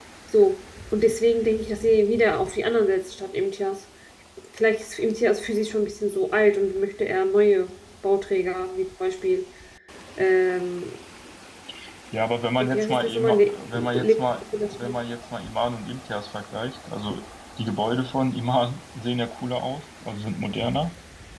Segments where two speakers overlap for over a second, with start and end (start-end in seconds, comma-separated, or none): 12.6-14.1